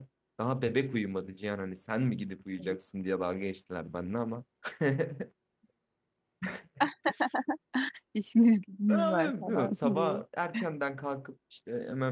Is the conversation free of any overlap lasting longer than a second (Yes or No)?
No